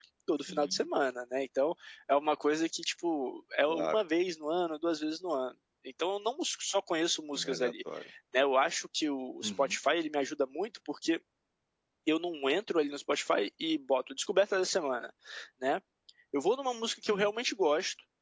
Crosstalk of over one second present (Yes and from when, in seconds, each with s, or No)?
No